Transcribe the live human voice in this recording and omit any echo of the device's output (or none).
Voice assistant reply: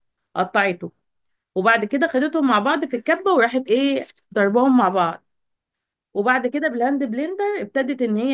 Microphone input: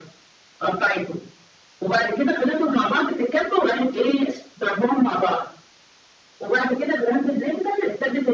none